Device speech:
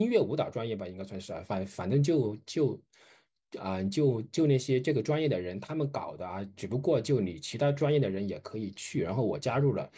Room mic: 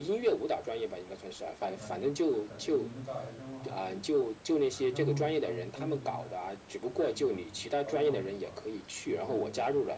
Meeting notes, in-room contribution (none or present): present